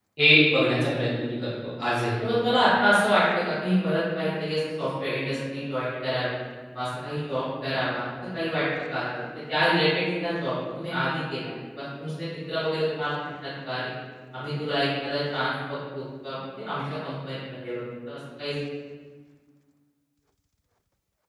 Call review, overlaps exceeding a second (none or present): none